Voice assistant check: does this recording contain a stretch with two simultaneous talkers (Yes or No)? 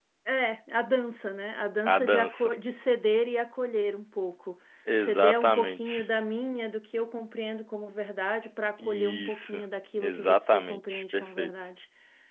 Yes